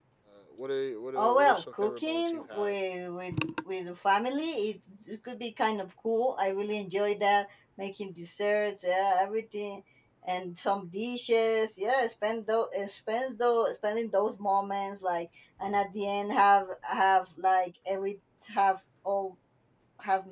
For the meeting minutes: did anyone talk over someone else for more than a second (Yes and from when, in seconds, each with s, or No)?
Yes, from 1.2 s